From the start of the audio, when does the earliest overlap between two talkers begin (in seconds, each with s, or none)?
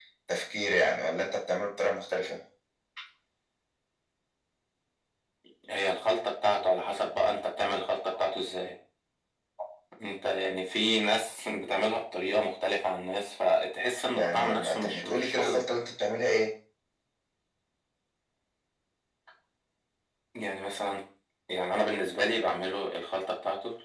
14.1 s